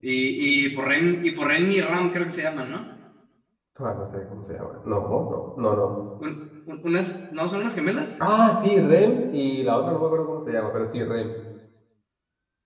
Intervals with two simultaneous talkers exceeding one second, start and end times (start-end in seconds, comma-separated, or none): none